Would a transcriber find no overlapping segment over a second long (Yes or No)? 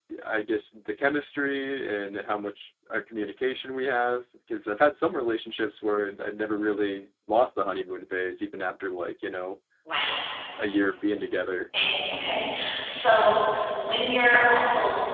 Yes